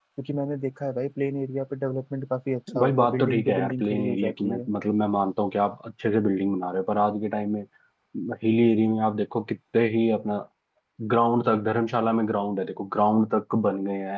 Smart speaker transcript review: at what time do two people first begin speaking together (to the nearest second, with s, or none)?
3 s